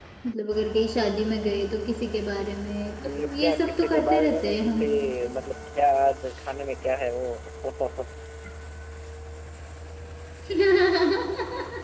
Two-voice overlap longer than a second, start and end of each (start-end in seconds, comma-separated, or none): 3.0-4.8